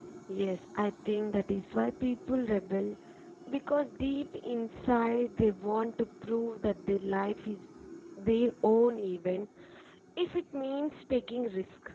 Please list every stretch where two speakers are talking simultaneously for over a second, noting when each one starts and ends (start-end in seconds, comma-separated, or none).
none